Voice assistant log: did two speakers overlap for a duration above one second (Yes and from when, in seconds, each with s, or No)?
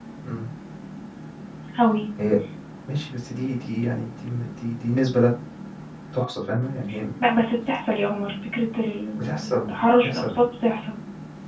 Yes, from 9.2 s